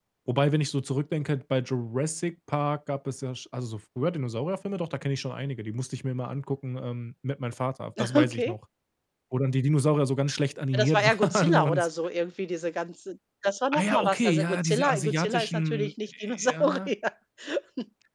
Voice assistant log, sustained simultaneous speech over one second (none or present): present